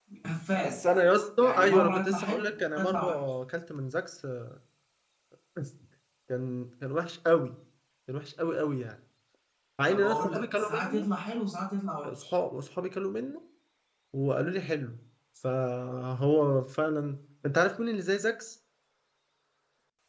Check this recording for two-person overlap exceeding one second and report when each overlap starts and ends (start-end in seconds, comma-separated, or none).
1.4-3.3, 9.9-11.1